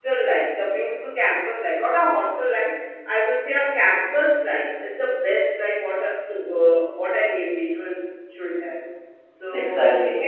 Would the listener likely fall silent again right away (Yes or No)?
Yes